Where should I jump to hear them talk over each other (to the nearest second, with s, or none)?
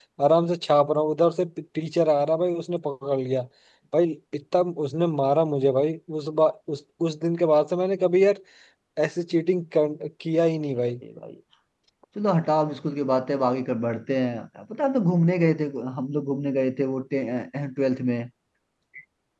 none